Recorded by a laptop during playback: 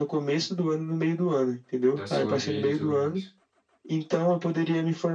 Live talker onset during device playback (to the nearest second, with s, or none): 2 s